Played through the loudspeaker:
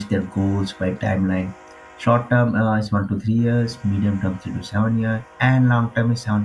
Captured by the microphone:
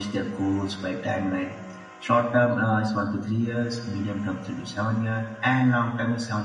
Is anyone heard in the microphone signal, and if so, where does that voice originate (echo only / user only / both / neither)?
echo only